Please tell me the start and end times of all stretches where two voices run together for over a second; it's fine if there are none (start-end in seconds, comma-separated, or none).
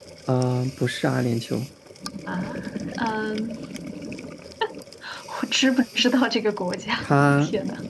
none